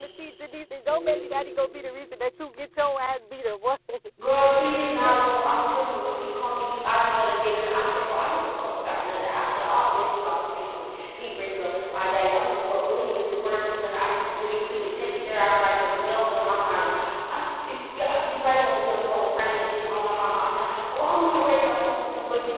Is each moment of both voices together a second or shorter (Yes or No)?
Yes